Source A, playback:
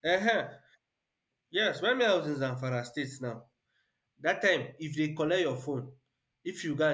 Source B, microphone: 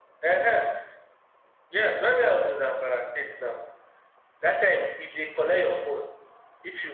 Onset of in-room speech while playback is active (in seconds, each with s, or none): none